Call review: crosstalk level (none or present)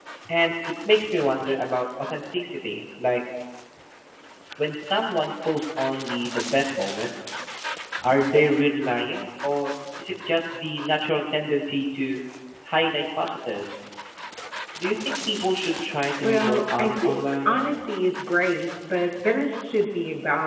present